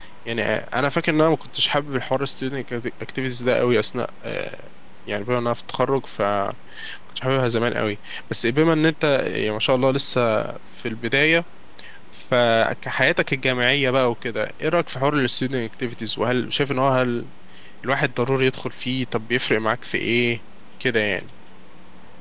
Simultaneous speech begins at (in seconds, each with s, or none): none